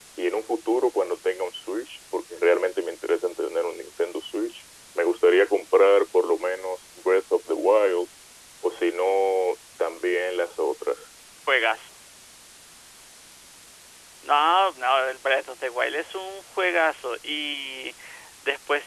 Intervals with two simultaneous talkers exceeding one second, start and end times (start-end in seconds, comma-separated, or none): none